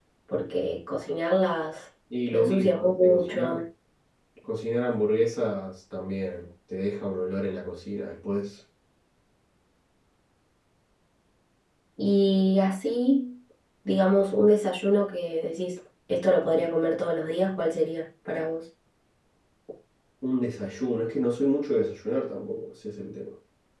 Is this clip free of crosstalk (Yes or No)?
No